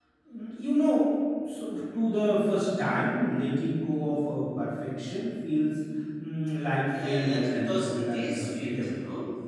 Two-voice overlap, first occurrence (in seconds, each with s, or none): 6.9 s